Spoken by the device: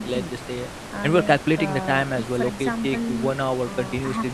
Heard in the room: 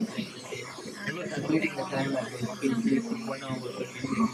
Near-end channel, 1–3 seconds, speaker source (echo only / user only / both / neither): echo only